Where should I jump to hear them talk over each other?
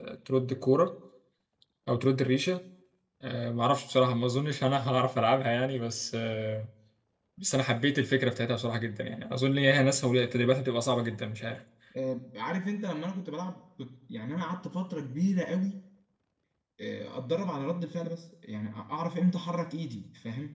none

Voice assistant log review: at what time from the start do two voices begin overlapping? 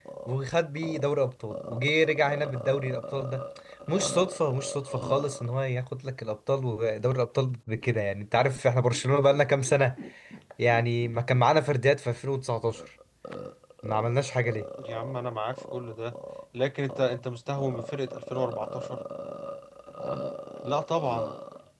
none

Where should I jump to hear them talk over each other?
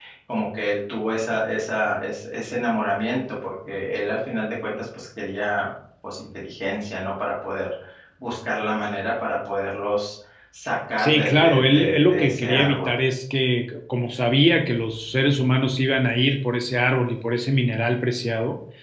11.0 s

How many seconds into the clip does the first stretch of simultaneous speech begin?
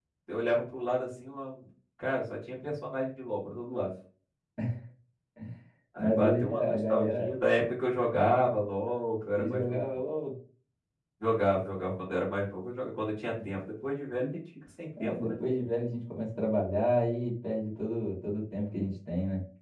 6.0 s

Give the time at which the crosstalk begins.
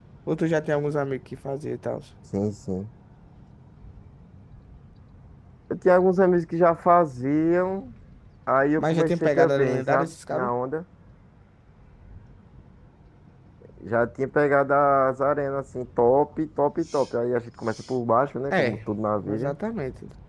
8.8 s

